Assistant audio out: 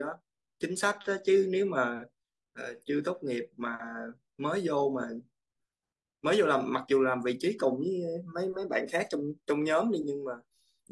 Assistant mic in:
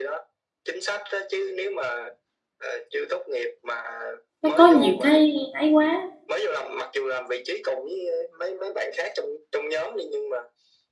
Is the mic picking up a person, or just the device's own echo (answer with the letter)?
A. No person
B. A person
B